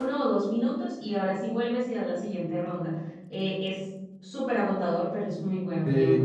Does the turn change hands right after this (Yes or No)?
Yes